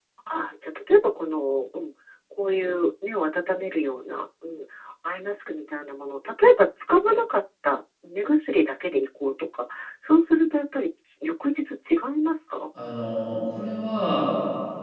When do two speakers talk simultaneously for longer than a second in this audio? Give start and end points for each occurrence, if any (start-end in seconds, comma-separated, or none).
none